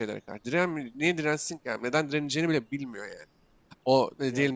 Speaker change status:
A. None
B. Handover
A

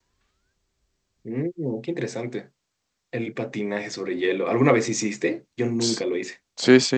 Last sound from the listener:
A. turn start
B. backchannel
A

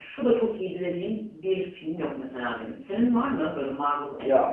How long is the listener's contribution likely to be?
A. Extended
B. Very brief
A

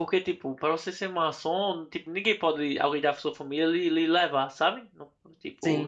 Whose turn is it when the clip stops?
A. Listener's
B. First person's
B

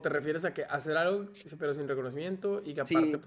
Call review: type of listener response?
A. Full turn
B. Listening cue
A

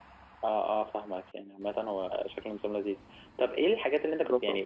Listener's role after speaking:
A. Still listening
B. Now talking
A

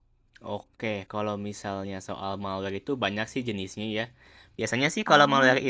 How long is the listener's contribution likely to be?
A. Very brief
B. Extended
A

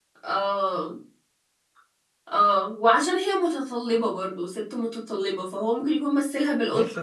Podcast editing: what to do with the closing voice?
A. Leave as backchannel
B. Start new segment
B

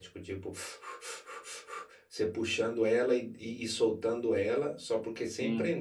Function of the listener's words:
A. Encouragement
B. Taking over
A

